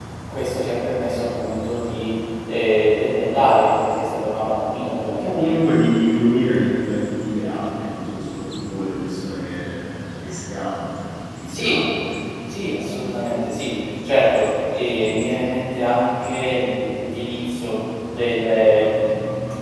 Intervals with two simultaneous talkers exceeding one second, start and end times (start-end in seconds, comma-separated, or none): none